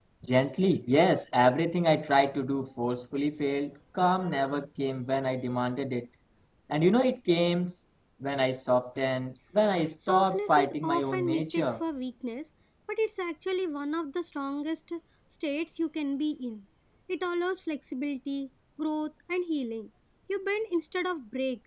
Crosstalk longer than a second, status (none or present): present